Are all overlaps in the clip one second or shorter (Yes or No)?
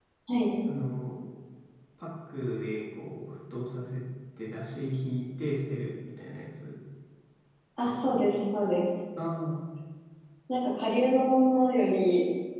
Yes